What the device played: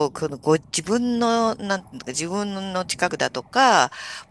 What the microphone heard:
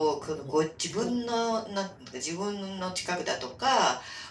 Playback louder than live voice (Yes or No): Yes